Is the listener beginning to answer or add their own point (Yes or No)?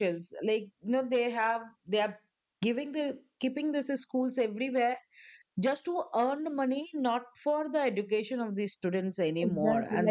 Yes